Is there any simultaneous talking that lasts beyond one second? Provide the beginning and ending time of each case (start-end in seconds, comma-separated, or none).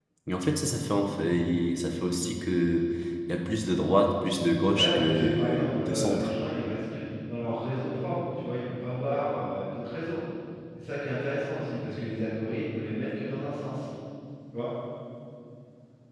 4.7-6.3